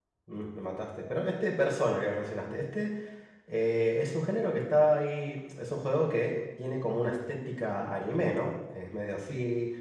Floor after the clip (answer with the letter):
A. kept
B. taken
A